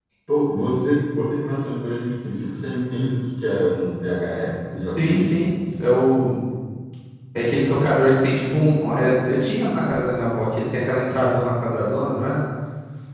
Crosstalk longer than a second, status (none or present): none